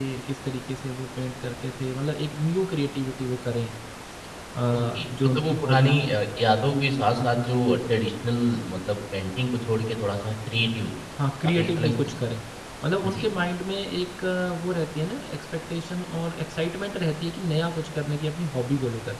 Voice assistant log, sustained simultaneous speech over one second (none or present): present